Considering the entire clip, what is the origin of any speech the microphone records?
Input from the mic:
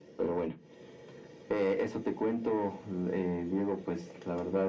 echo only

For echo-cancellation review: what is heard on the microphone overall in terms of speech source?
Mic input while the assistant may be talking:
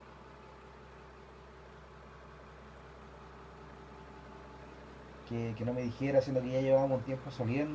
user only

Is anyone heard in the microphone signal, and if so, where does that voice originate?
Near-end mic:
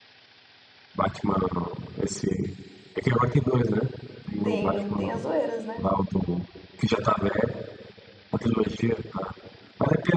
both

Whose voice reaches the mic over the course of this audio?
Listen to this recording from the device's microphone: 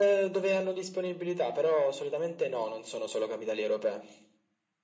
echo only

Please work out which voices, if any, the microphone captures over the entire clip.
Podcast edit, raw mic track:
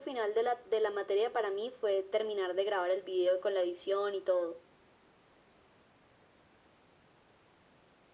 echo only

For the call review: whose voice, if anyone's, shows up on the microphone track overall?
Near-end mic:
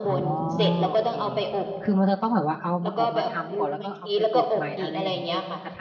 both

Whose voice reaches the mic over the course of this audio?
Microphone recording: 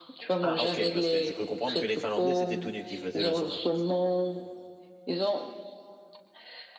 both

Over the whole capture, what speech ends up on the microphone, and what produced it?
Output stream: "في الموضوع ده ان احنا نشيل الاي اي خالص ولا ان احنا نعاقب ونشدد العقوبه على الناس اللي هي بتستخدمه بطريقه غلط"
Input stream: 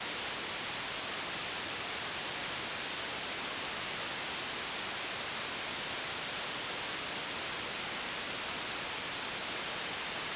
neither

